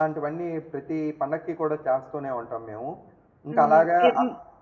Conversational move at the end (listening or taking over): taking over